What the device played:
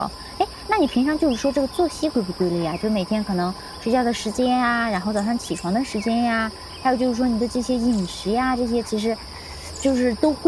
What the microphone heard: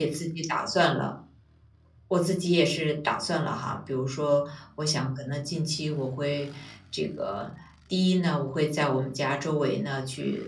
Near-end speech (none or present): present